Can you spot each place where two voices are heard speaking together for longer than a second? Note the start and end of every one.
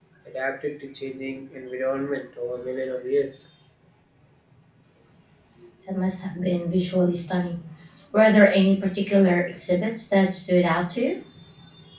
none

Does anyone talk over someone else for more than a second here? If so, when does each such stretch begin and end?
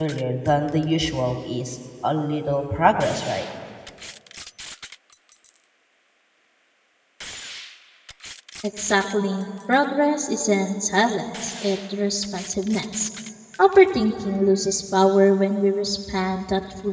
none

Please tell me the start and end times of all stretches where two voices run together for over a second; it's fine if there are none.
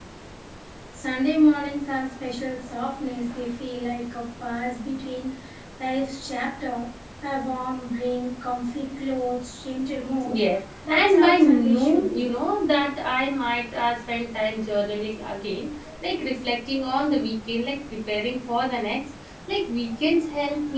10.9-12.3

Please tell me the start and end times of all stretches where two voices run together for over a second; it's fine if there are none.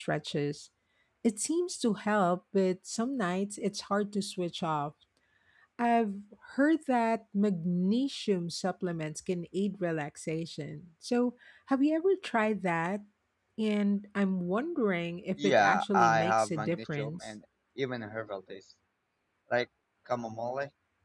15.4-17.3

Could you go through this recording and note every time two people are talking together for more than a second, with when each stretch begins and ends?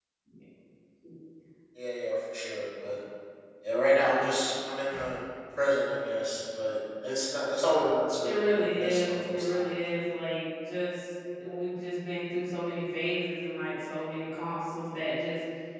8.2-9.7

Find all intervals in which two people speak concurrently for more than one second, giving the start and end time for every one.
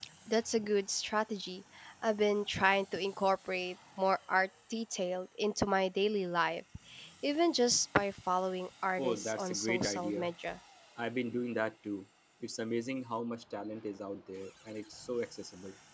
9.0-10.3

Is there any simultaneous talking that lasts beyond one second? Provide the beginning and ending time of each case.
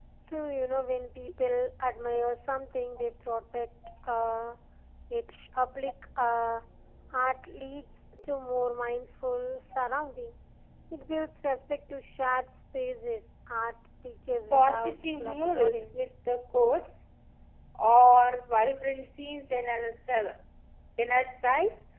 14.5-16.0

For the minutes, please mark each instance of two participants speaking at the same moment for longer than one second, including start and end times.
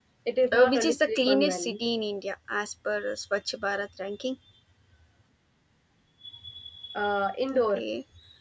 0.5-1.7

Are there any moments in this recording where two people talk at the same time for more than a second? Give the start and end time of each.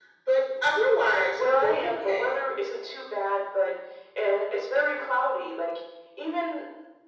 1.1-2.4

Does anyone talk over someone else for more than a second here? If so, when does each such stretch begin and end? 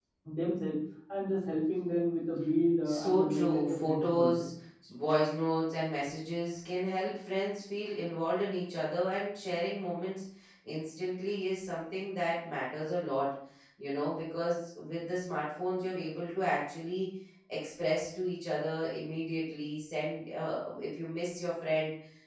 2.9-4.5

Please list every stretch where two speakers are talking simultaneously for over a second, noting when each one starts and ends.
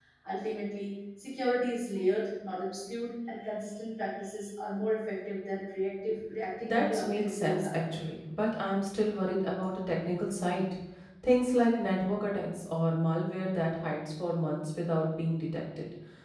6.6-7.9

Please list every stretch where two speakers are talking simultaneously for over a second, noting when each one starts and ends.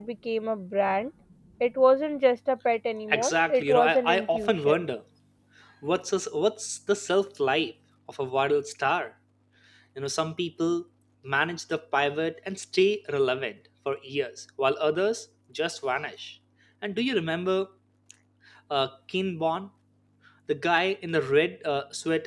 3.1-4.8

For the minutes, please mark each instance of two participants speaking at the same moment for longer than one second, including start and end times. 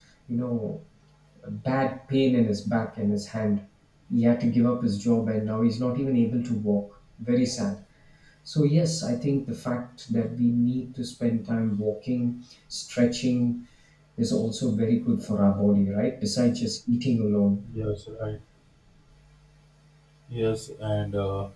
none

